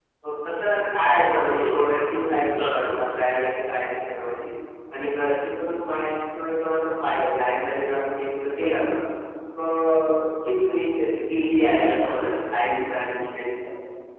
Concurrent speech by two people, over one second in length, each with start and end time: 1.5-3.2

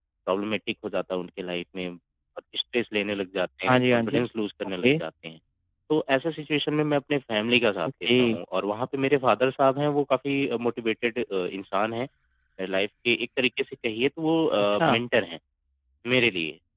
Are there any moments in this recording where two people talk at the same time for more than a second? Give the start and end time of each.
none

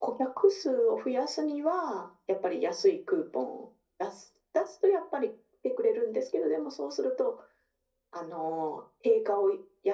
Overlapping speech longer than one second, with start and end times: none

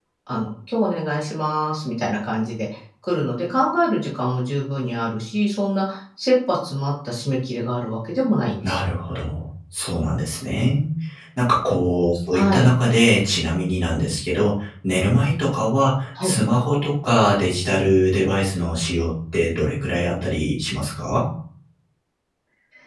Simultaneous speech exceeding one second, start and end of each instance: none

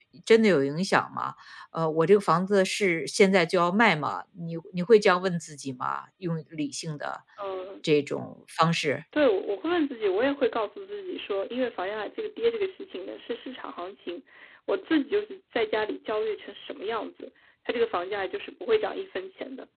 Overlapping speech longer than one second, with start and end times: none

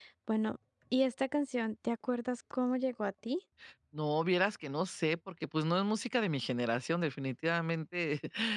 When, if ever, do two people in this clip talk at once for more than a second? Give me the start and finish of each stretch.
none

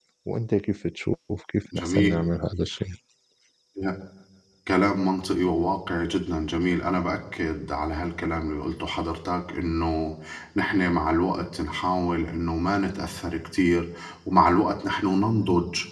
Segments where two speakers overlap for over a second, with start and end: none

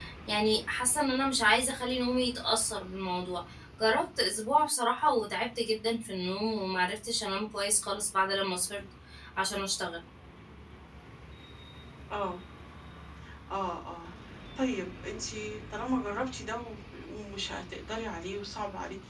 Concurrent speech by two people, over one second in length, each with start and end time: none

